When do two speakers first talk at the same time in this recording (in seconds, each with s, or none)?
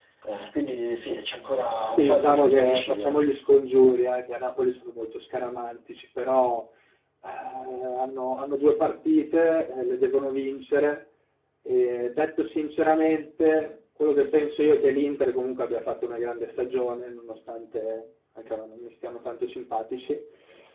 2.0 s